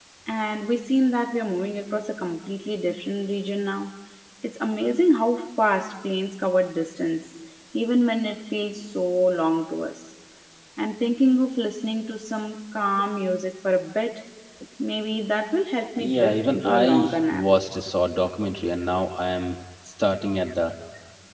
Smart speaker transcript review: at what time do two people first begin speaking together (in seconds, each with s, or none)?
16.0 s